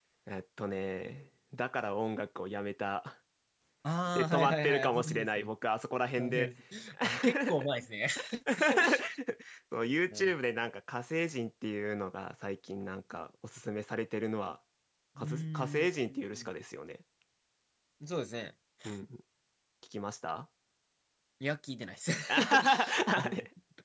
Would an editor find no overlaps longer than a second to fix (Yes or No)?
No